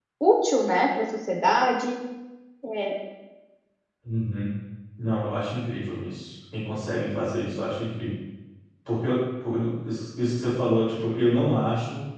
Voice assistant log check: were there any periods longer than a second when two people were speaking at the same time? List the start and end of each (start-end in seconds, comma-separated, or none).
none